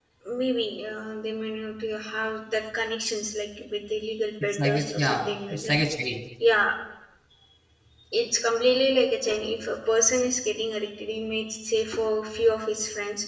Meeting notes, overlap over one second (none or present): present